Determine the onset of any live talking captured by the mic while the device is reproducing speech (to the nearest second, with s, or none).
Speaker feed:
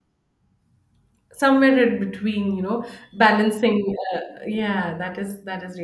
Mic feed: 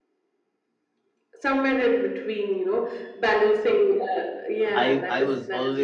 5 s